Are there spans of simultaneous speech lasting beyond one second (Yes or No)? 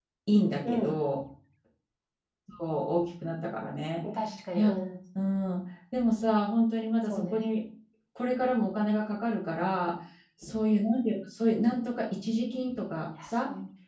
No